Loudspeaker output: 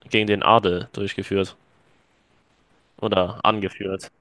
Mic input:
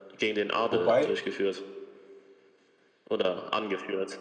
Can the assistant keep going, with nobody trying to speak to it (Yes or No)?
No